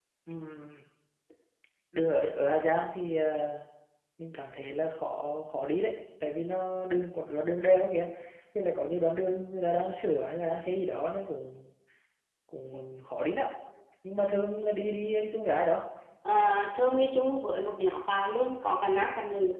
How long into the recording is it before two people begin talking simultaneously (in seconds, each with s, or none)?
none